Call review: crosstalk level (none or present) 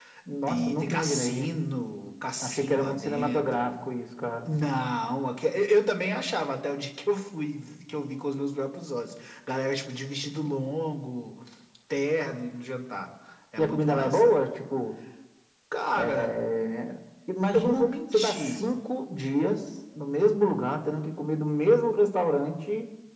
present